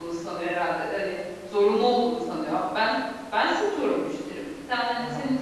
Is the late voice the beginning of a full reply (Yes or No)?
No